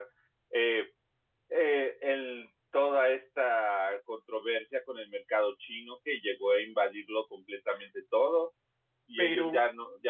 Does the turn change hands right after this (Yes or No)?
No